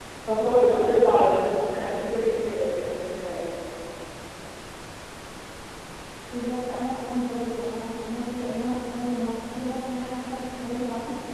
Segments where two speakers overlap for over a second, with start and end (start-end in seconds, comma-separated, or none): none